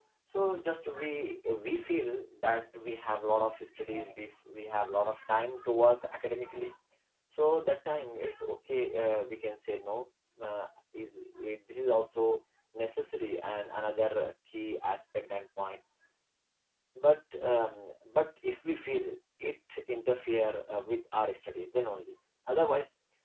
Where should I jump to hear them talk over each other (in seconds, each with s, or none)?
none